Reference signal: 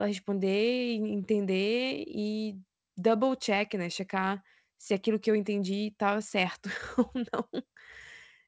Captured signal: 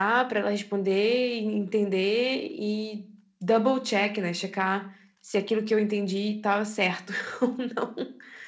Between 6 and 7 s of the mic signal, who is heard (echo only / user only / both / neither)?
echo only